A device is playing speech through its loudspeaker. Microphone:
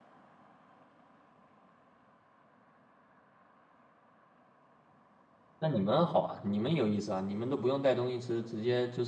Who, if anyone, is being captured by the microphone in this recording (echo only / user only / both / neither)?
user only